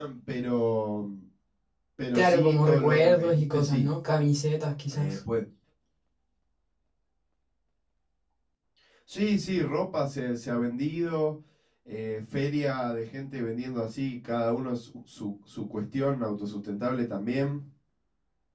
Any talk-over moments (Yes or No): Yes